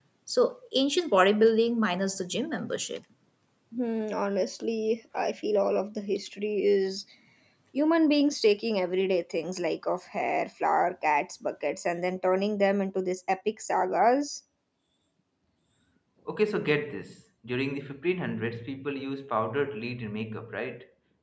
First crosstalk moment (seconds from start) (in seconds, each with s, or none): none